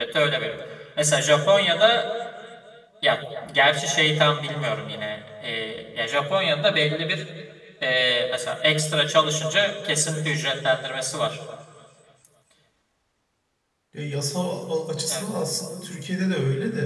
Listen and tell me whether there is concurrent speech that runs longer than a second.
No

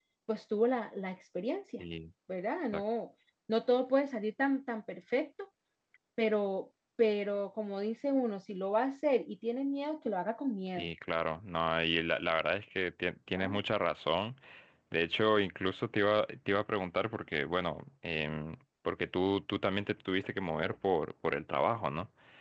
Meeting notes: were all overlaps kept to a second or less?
Yes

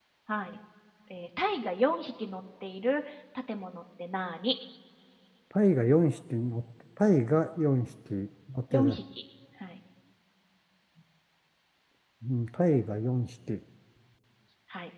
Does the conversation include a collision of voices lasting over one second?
No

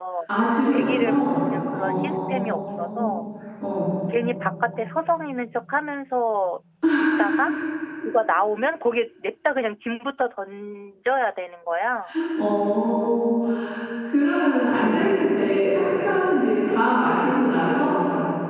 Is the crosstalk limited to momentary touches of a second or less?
No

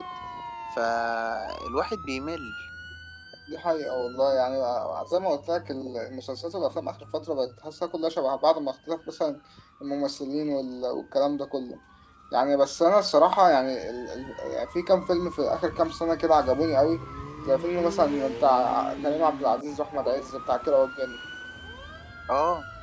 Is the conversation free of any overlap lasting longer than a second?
Yes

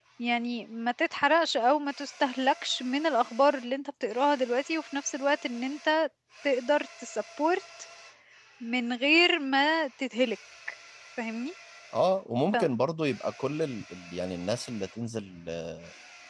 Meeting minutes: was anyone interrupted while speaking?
No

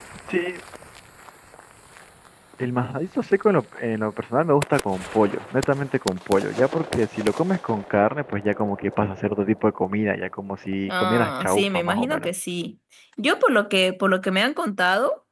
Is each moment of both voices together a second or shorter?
No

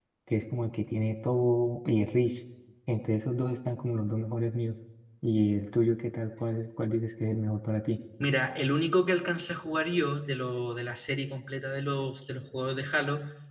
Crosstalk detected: No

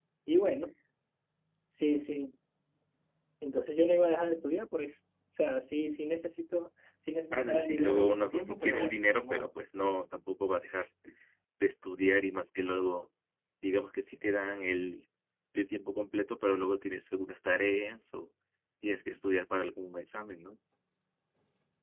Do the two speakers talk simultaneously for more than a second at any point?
Yes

